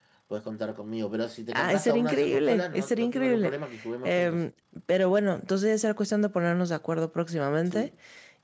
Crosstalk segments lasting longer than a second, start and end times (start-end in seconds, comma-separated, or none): 1.6-3.5